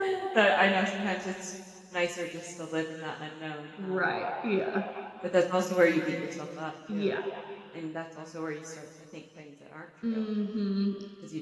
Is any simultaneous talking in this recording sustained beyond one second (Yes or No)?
No